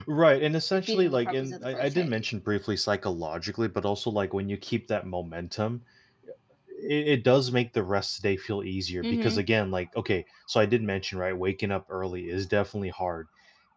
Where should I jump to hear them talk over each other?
0.7 s

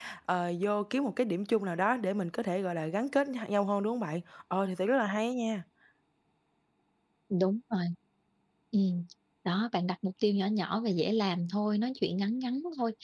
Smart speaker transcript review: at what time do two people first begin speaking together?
none

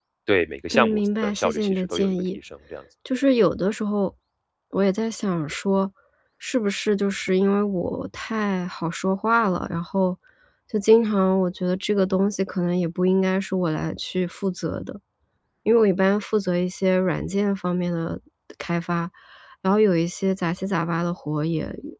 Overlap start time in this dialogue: 0.7 s

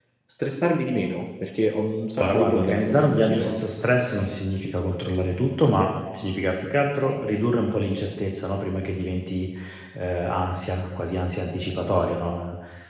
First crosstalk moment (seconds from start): 2.2 s

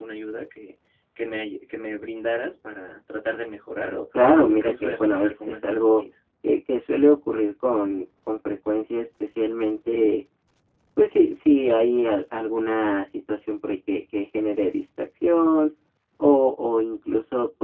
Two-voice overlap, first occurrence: 4.4 s

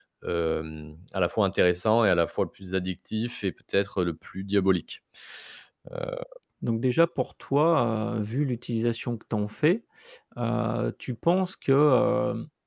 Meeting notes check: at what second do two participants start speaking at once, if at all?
none

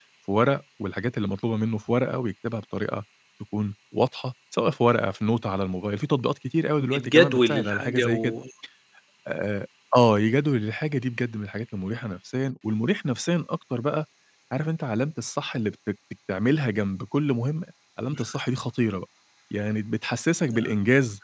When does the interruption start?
6.8 s

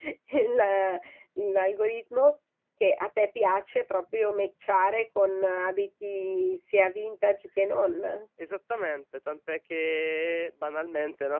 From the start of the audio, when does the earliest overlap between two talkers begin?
none

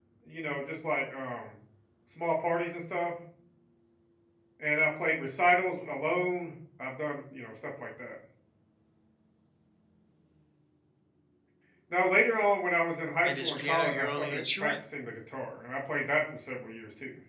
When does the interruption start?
13.2 s

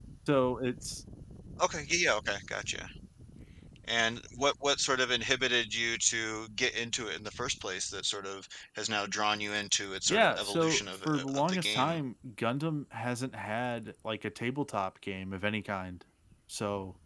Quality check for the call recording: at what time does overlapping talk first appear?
10.1 s

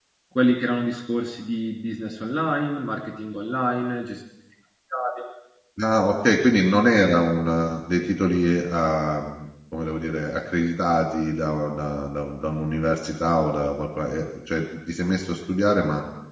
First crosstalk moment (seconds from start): none

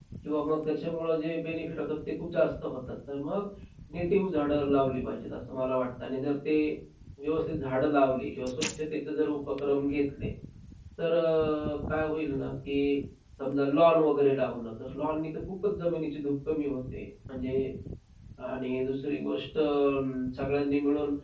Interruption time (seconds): none

